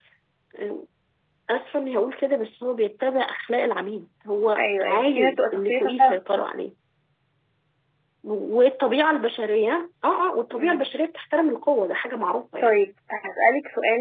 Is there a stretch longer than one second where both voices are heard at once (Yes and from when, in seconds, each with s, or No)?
Yes, from 4.6 s